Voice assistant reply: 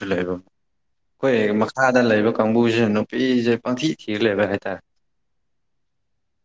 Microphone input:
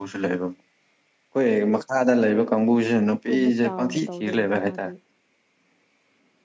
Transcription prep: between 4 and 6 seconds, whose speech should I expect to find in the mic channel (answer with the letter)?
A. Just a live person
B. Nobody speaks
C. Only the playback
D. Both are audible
D